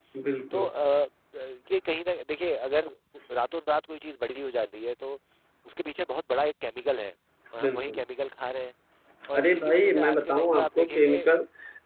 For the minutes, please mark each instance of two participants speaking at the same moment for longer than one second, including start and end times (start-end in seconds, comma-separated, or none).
9.4-11.2